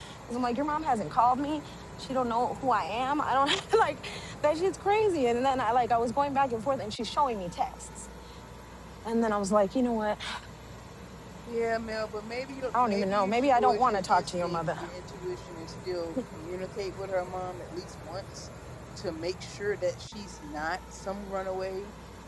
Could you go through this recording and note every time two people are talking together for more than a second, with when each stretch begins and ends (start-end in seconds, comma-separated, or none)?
12.8-14.8